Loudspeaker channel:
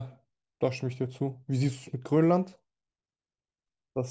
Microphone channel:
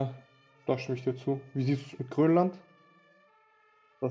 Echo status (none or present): present